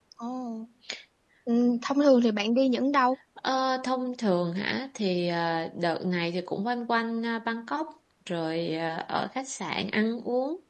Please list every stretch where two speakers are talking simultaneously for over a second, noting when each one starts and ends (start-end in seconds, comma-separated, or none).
none